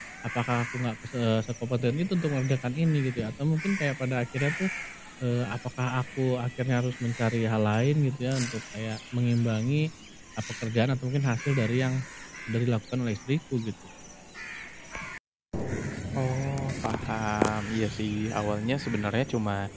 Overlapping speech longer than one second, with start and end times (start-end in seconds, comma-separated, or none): none